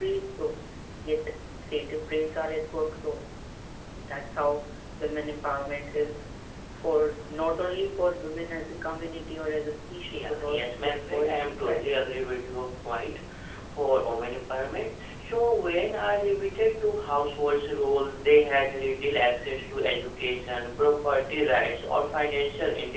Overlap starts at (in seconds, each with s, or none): 10.1 s